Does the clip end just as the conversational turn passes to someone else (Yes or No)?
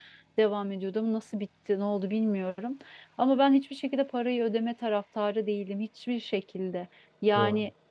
No